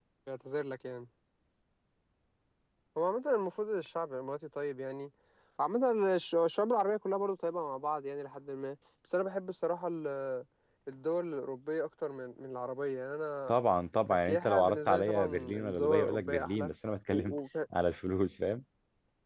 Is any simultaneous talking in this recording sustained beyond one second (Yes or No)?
Yes